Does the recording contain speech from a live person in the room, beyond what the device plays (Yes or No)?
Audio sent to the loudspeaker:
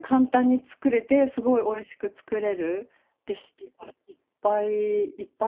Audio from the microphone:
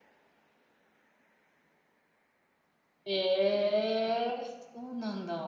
Yes